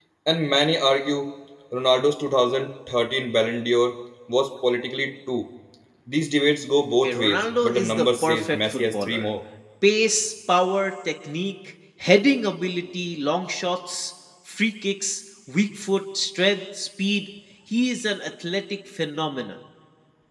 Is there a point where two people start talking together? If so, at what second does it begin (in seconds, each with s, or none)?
7.0 s